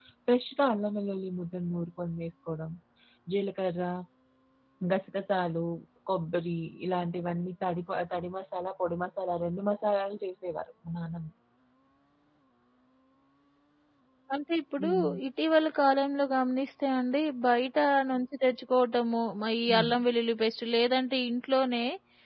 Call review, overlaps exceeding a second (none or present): none